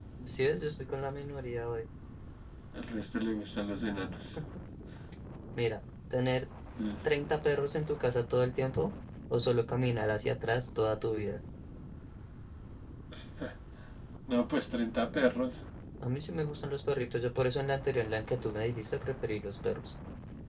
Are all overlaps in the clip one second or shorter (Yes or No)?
Yes